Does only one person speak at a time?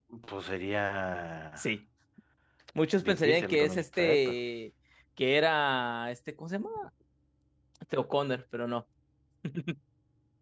No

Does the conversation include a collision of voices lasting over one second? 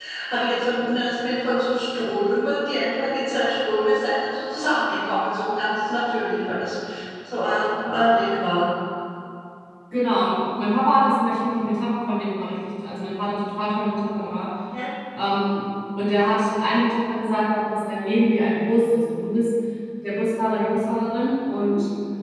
No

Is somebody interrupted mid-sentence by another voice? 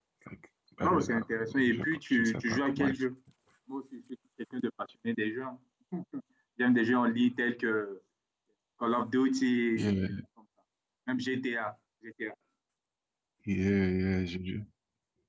Yes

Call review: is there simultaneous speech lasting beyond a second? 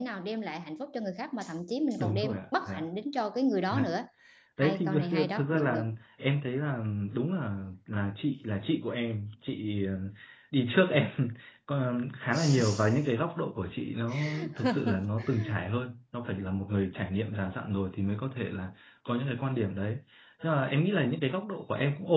Yes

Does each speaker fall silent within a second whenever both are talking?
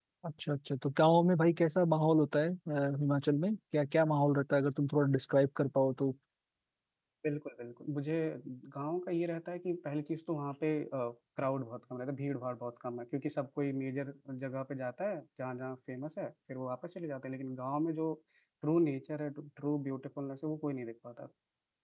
Yes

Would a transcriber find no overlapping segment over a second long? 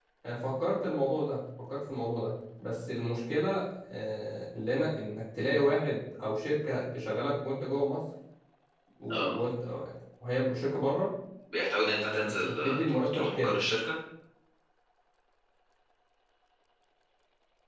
No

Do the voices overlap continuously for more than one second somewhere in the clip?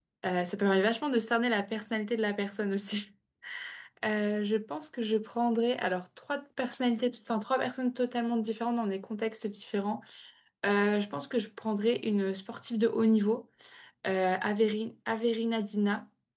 No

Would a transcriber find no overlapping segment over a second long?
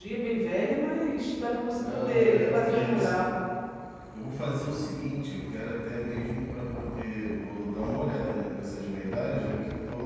No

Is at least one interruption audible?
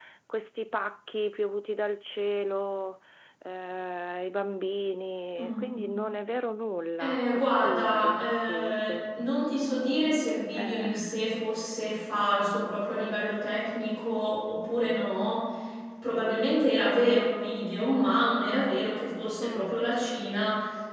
Yes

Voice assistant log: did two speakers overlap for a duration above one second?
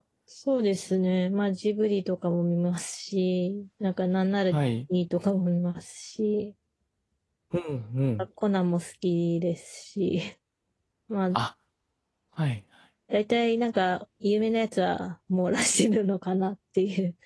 No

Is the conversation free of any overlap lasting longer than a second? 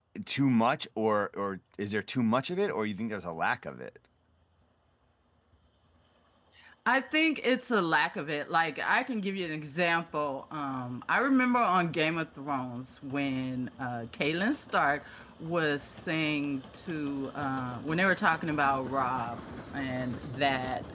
Yes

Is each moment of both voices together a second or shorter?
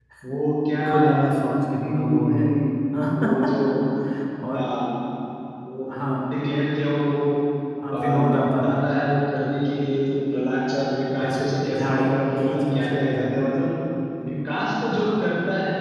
No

